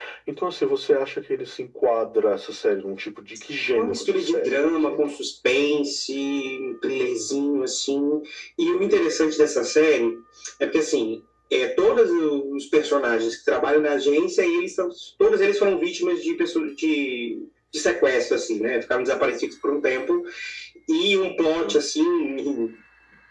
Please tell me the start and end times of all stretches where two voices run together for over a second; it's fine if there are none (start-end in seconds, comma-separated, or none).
3.7-5.0